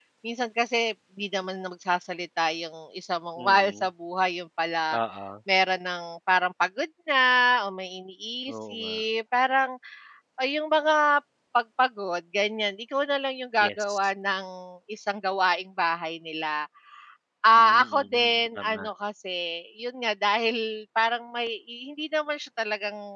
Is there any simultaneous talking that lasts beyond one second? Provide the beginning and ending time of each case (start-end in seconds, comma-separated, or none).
17.5-18.9